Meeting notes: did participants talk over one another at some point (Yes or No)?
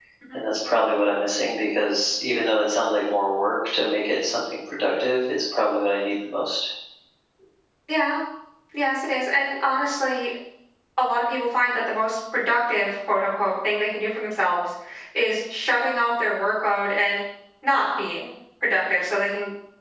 No